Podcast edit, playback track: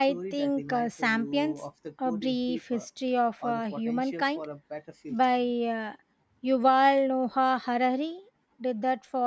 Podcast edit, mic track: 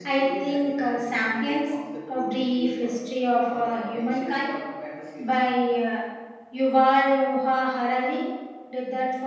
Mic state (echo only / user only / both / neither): echo only